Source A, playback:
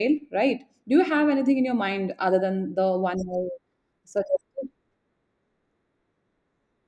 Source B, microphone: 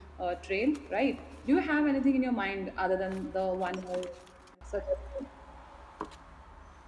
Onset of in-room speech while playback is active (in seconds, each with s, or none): none